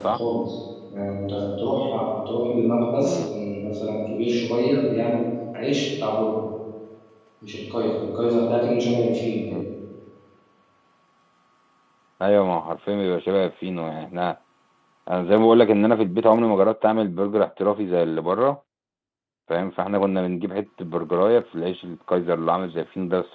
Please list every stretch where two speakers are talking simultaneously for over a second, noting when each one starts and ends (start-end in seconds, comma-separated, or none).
none